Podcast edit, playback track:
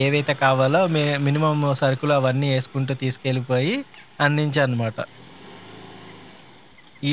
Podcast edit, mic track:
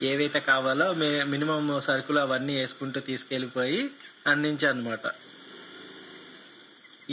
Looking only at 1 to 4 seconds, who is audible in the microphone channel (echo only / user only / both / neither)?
echo only